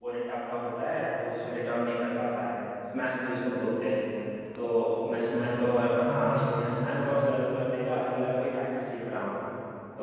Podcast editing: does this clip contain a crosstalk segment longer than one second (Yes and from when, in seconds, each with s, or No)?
Yes, from 5.2 s